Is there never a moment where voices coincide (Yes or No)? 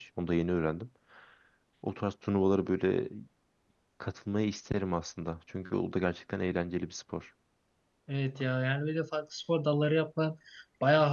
Yes